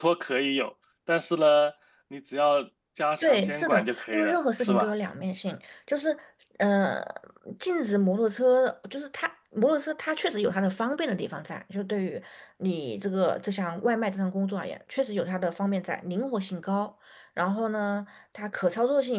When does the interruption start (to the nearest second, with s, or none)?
3 s